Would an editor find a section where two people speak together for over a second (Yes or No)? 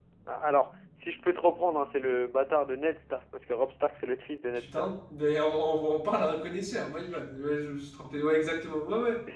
No